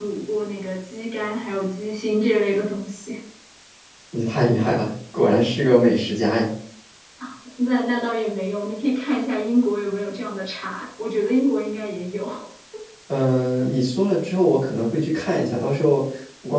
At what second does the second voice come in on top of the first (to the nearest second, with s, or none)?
none